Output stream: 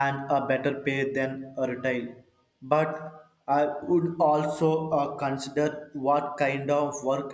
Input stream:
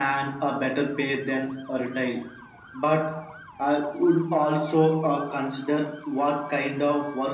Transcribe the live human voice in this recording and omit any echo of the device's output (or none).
none